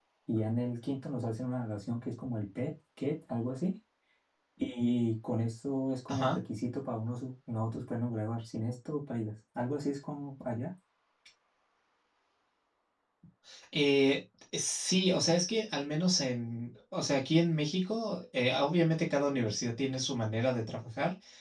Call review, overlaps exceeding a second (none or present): none